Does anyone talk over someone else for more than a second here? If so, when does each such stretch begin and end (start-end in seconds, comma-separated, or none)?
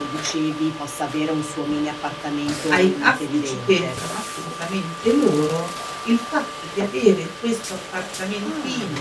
2.7-4.0